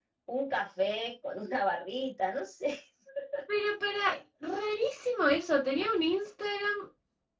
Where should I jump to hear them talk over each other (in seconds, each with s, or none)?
none